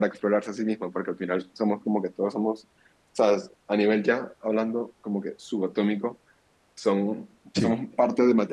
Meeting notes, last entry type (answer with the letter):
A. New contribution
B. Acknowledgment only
B